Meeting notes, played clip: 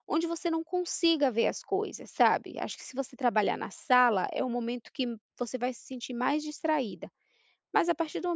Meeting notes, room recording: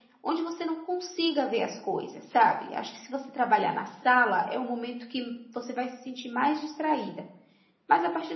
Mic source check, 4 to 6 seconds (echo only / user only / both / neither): echo only